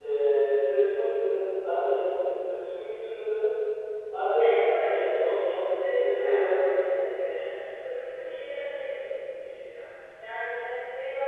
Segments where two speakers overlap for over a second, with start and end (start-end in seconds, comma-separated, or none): 4.4-7.1